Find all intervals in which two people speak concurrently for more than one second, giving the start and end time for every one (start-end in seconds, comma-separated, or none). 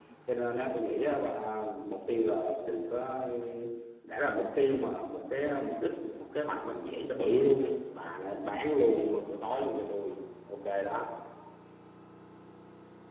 none